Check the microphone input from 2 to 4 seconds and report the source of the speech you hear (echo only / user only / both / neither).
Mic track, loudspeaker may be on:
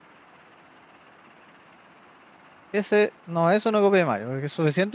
user only